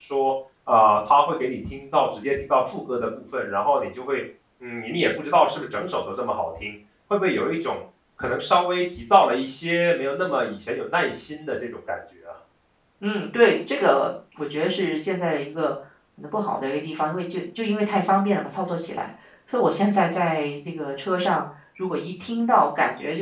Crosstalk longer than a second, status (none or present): none